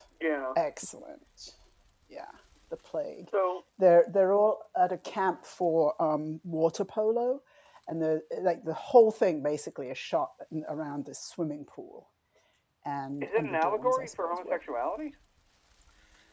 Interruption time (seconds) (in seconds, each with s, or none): 13.2 s